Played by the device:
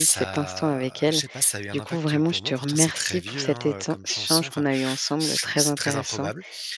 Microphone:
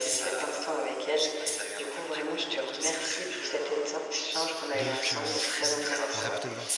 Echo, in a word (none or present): present